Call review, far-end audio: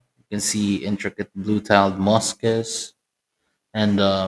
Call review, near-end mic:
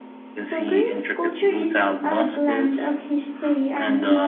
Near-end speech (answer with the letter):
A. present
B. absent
A